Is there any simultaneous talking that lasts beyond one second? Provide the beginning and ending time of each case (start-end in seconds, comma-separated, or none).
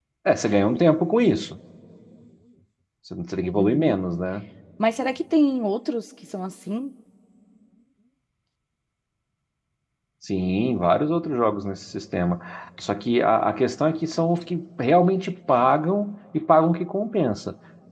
none